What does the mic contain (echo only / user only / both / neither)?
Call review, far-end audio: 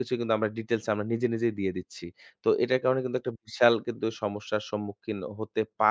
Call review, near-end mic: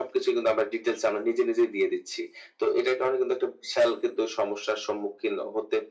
echo only